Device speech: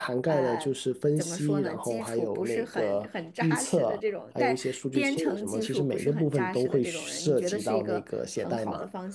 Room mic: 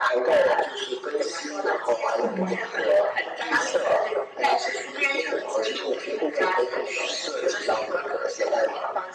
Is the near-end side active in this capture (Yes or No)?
Yes